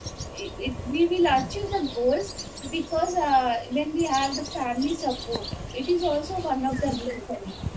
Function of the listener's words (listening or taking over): taking over